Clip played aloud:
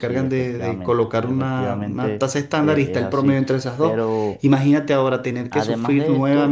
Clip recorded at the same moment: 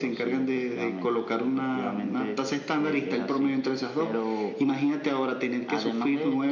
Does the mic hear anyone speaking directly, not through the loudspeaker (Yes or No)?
No